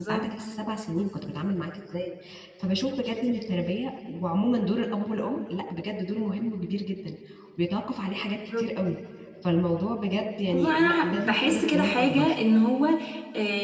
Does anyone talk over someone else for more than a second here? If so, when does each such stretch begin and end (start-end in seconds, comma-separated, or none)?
10.5-12.4